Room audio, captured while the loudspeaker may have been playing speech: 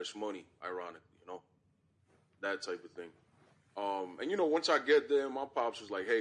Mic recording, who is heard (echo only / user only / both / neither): echo only